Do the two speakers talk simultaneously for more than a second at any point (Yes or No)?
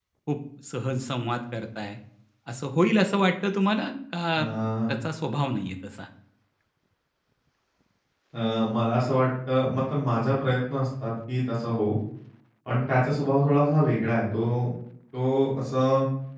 No